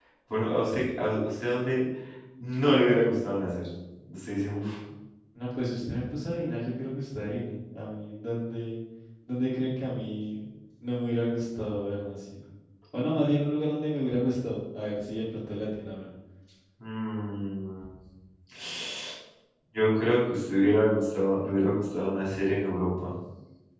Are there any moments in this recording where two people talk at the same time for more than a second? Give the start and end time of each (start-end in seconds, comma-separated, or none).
none